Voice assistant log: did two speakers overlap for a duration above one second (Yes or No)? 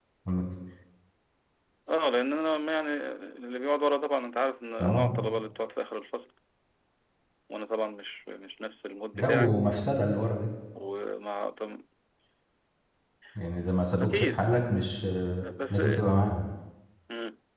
No